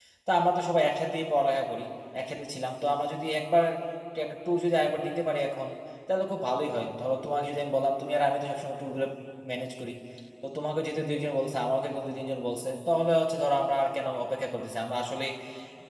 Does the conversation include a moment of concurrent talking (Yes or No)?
No